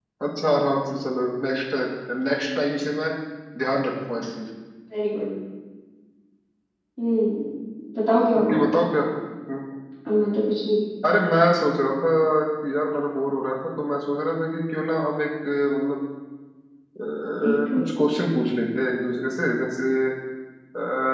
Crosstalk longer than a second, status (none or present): none